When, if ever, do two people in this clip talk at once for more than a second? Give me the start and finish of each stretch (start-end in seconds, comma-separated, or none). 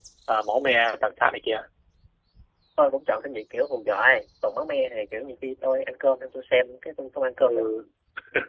none